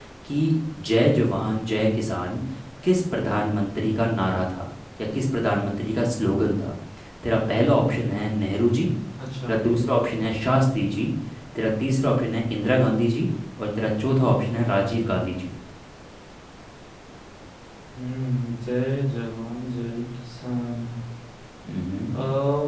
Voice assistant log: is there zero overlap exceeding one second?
Yes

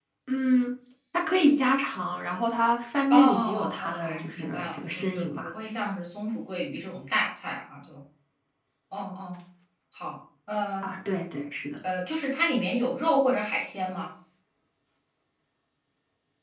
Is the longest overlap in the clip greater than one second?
Yes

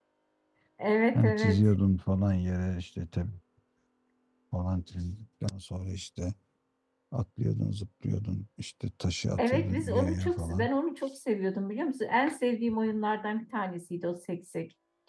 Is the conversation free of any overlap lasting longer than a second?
No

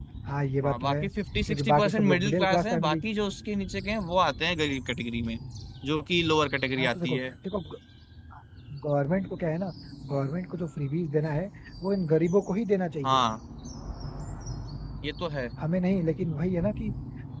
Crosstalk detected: Yes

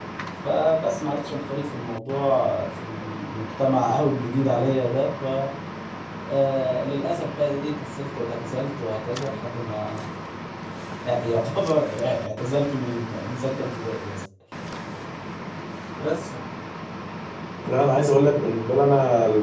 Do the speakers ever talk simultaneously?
No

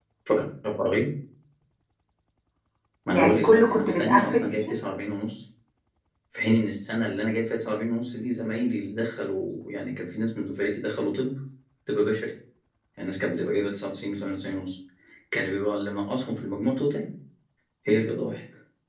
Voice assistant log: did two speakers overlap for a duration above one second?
Yes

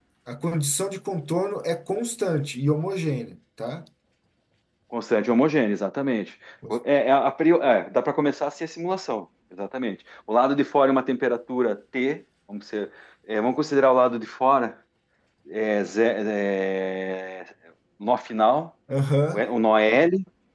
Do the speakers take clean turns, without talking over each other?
Yes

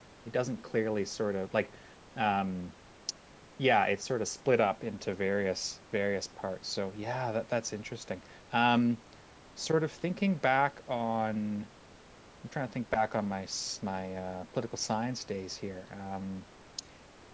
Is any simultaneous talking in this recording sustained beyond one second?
No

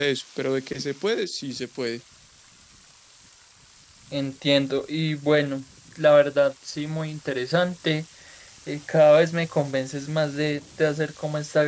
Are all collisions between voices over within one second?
Yes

